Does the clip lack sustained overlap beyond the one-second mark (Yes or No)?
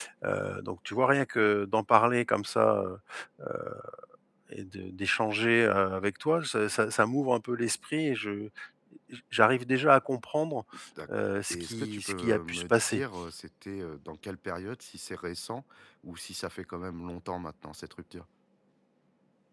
No